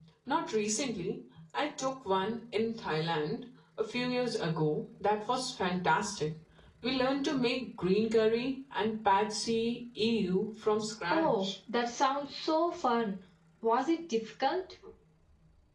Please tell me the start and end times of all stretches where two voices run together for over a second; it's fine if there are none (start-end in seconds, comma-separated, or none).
none